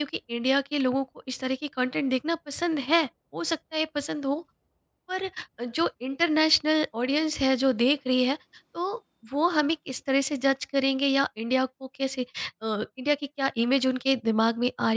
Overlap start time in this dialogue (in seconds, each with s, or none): none